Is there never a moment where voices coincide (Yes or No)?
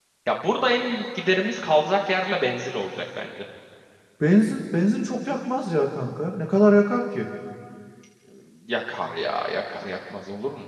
Yes